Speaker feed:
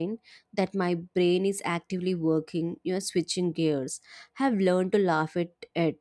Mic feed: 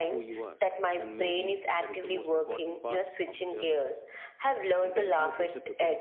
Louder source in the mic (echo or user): echo